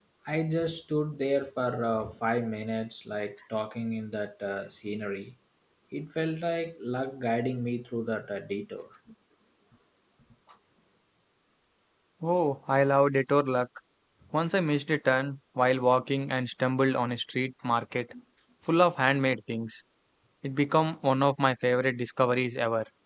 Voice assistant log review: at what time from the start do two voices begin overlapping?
none

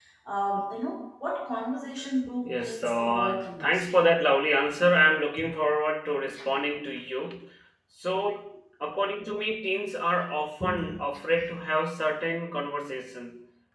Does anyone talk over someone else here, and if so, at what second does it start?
2.4 s

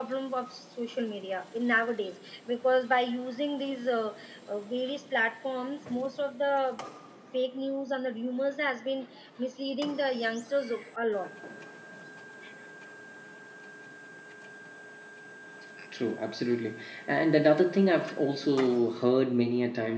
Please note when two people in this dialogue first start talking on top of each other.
none

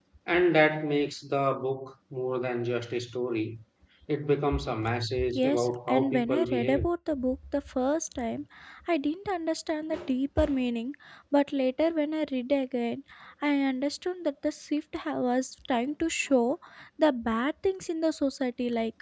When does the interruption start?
5.3 s

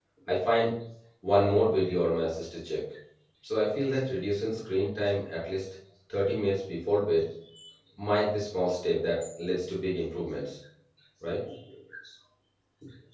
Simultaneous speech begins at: none

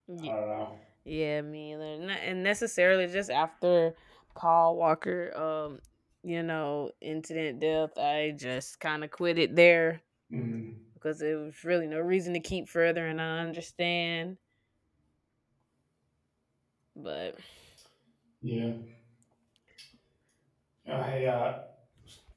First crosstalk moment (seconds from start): none

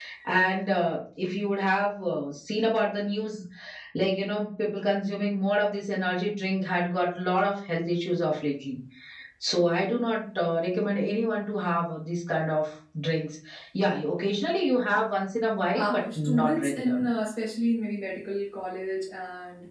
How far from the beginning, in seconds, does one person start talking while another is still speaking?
15.8 s

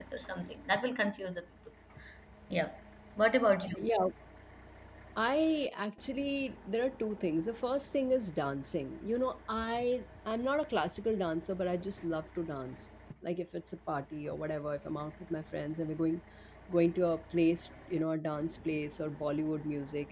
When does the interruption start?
none

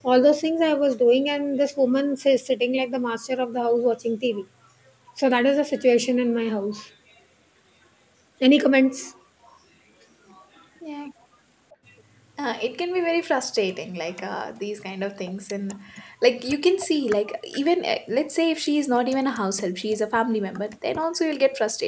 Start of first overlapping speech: none

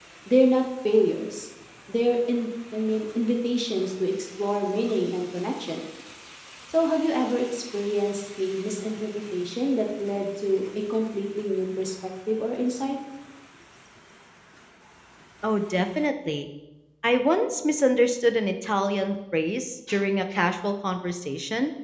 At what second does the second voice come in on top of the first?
none

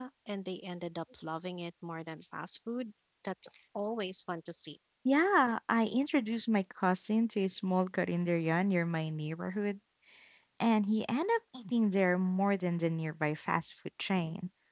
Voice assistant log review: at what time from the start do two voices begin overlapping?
none

